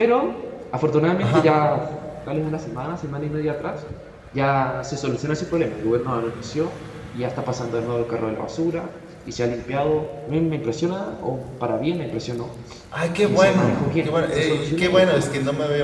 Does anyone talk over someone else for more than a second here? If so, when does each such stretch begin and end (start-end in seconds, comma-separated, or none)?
13.2-15.3